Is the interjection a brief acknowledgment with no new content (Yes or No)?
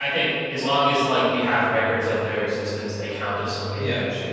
No